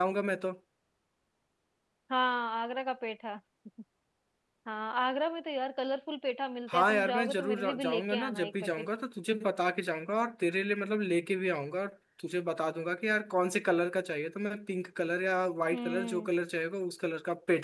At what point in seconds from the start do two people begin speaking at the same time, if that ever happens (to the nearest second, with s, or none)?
7 s